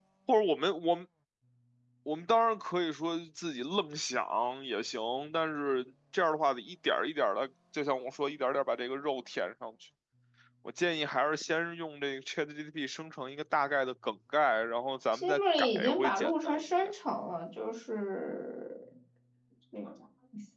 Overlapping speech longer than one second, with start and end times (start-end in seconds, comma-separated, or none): 15.1-16.9